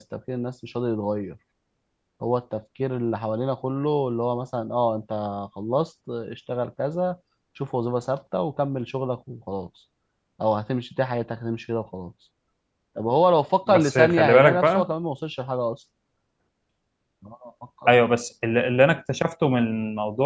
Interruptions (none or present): present